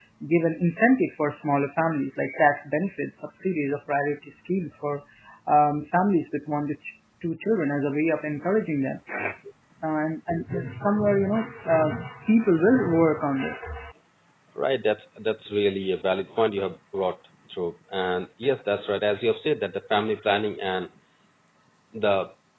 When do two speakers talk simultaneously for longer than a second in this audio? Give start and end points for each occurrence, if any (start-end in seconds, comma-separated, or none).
none